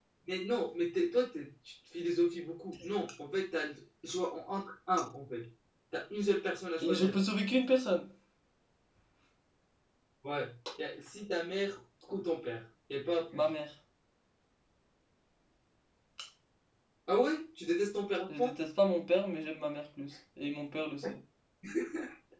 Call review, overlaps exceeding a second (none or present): none